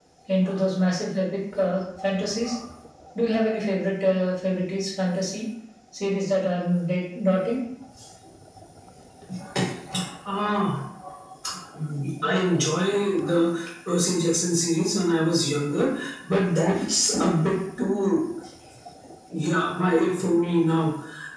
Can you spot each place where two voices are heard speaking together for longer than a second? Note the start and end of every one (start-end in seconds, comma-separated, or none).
none